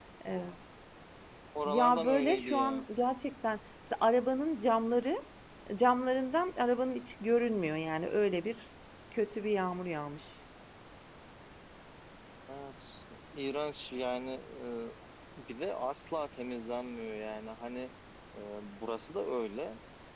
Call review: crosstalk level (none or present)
present